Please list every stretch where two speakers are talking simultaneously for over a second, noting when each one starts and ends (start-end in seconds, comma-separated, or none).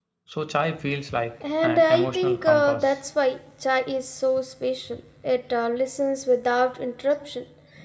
1.6-2.9